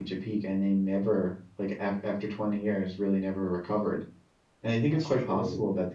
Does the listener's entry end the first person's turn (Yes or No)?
No